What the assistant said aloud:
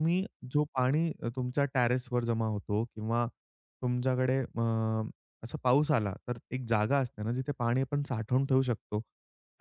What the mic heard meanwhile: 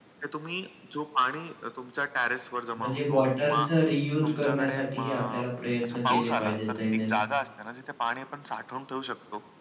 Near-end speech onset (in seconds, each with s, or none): 2.8 s